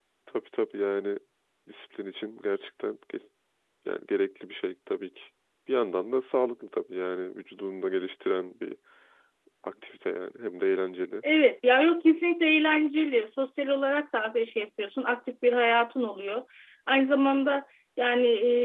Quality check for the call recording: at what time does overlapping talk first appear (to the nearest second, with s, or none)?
none